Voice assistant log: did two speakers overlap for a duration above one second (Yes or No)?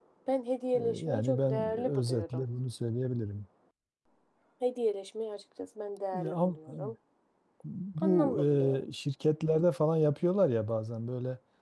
Yes